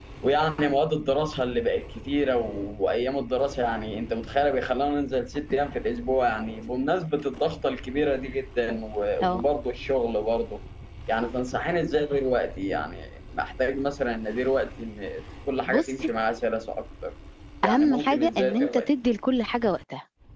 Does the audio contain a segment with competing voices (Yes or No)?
Yes